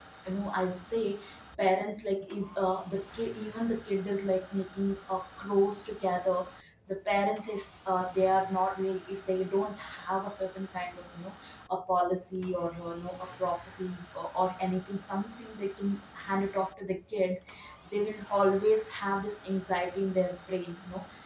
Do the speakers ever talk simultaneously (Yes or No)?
No